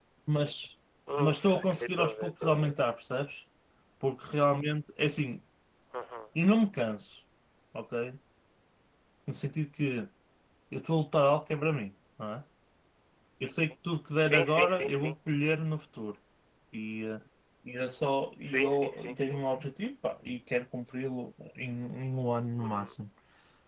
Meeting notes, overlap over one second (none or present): present